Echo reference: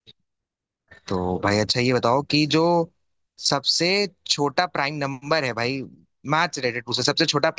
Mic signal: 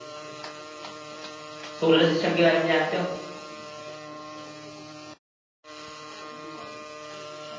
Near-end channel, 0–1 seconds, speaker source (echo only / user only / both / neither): neither